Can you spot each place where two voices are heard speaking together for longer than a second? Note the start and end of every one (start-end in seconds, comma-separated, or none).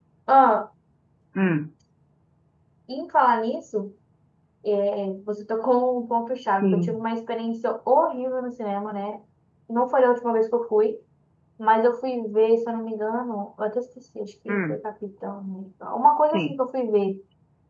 none